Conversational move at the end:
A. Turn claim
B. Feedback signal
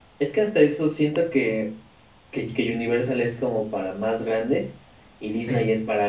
B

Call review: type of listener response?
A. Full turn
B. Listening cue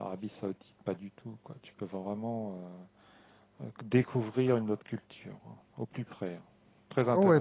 A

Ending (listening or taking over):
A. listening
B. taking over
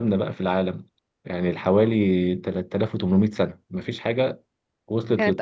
B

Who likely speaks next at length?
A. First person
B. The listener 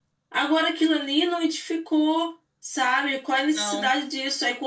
A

